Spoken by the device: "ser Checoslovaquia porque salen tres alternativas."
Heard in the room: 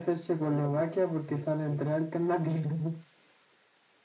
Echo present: Yes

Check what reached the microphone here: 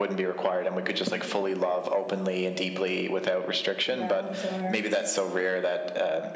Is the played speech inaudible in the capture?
No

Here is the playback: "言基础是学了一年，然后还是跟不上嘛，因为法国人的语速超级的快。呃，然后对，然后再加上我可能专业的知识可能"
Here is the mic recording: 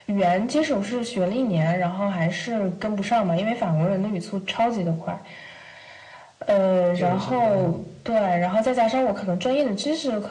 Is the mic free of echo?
No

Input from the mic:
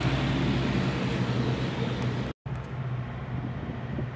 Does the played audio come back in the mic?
No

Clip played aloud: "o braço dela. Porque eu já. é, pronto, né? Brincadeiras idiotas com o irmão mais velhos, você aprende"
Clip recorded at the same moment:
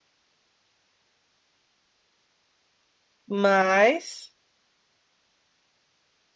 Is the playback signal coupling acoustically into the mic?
No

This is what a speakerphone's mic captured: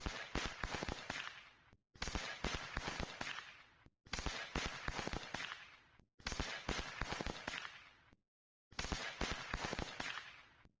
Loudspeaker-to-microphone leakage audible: No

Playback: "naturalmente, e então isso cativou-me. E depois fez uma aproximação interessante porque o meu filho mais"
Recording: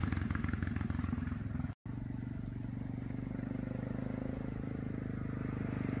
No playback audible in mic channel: Yes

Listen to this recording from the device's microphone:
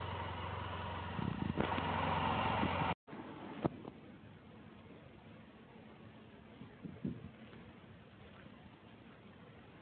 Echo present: No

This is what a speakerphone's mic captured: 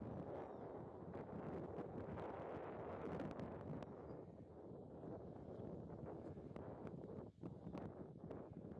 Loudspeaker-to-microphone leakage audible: No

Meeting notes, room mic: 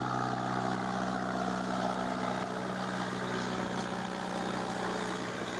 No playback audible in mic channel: Yes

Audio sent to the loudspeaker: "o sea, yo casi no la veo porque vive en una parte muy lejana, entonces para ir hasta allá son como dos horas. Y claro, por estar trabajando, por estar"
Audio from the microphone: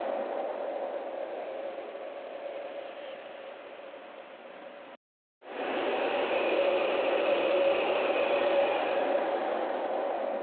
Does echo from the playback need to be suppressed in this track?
No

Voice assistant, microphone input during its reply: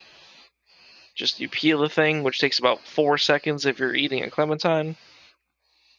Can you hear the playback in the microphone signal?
No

